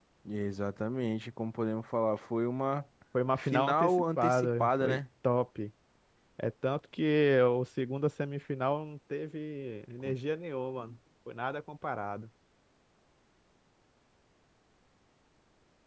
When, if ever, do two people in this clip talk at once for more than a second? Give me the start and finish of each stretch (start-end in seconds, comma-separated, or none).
3.4-5.0